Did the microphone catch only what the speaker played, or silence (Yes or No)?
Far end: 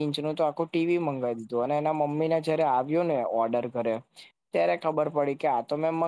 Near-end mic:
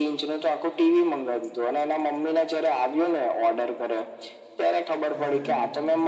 No